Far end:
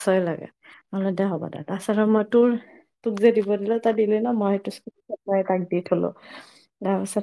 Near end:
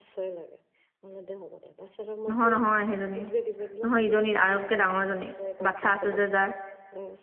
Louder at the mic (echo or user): user